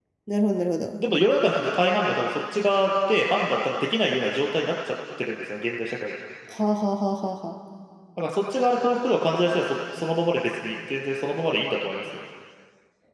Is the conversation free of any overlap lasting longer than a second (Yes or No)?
Yes